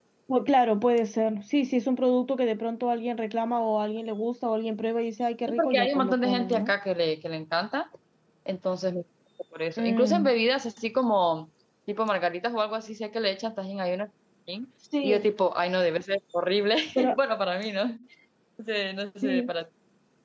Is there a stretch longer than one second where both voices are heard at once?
Yes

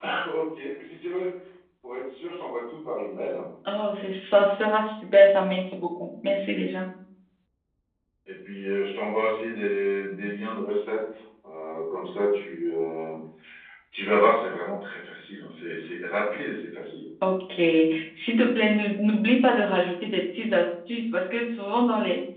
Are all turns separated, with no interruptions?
Yes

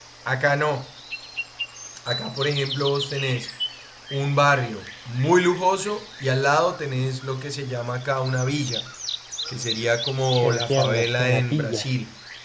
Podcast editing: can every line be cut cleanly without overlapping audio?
No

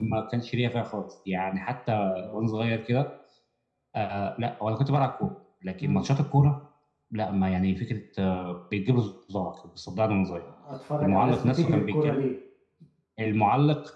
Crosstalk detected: Yes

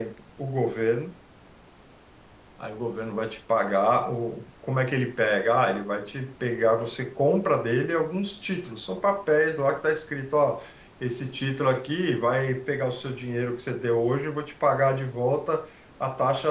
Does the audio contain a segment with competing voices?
No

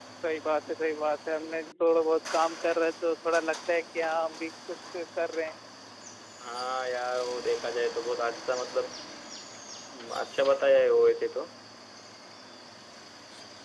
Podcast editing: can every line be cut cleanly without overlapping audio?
Yes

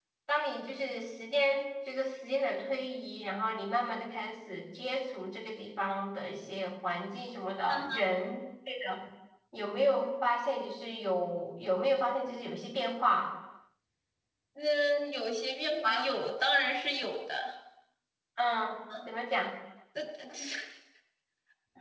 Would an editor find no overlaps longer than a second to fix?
Yes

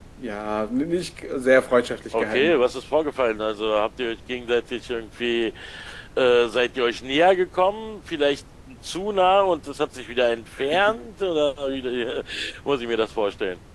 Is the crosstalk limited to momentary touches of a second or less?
Yes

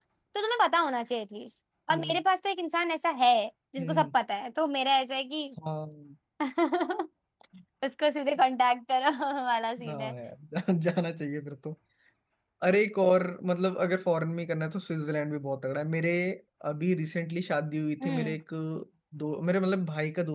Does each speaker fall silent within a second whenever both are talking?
Yes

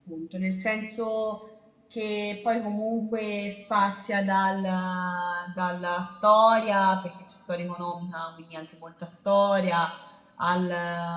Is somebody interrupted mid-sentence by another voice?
No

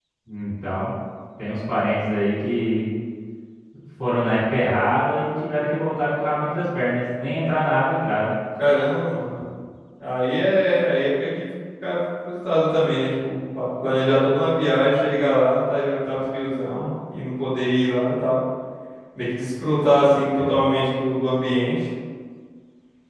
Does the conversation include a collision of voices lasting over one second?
No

